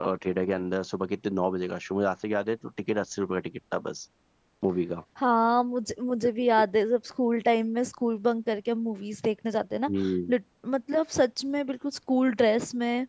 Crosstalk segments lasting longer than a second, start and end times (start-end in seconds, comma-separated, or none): none